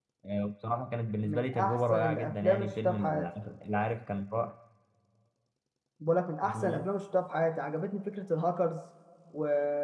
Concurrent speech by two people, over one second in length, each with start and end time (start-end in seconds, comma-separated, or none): 1.2-3.3